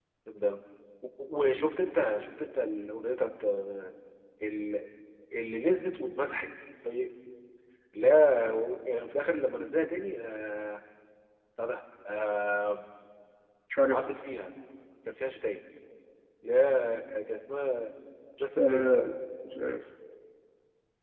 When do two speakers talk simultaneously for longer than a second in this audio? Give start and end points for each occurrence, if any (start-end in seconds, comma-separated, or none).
none